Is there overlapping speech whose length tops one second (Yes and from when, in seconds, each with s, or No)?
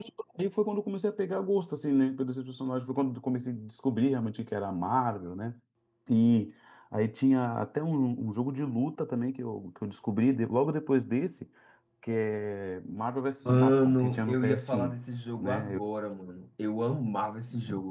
Yes, from 13.4 s